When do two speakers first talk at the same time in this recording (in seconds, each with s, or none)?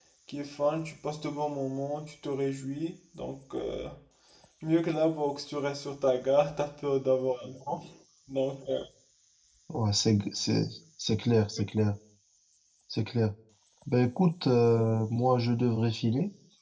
none